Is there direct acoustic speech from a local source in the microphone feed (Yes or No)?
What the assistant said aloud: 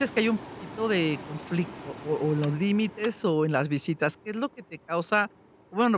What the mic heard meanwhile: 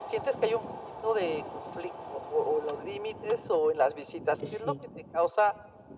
Yes